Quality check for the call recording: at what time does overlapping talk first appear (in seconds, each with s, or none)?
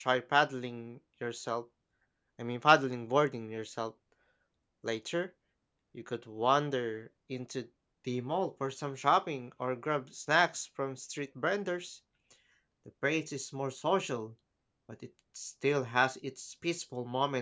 none